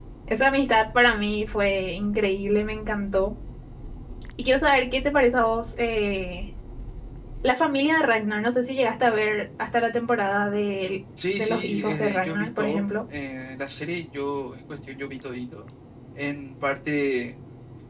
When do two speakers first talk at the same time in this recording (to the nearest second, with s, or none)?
11 s